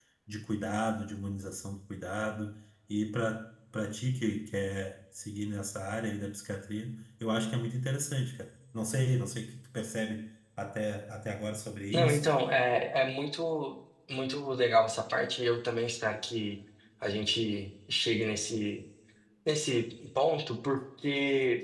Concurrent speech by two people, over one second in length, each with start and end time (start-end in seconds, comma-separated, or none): none